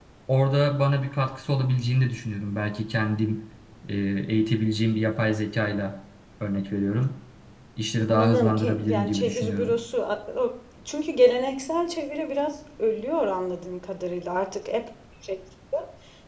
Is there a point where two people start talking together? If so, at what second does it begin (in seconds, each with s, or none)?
8.1 s